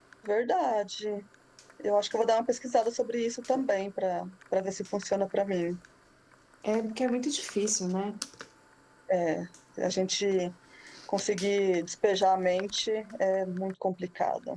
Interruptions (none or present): none